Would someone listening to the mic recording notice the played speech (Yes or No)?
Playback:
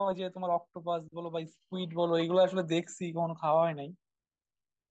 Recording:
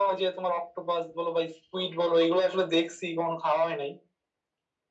Yes